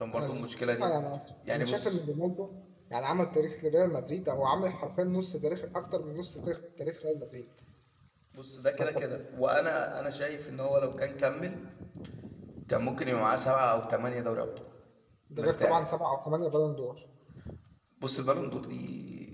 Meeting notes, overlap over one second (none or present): none